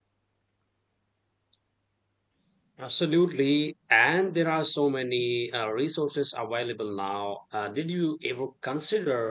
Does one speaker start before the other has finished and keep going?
No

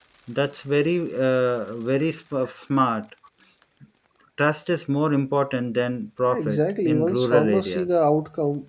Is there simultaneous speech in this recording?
Yes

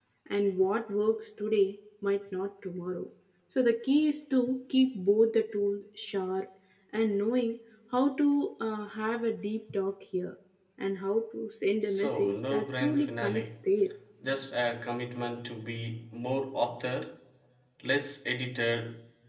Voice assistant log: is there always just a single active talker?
No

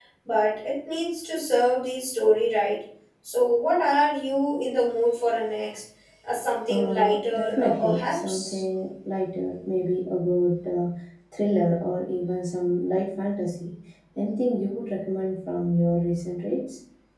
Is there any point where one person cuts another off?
Yes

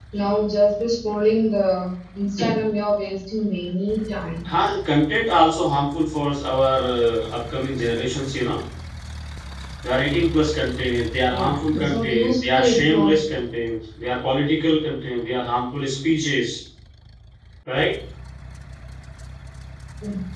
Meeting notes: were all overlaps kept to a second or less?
No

